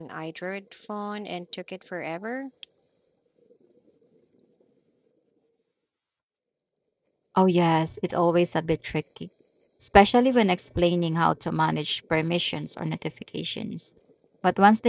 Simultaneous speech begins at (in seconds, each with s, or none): none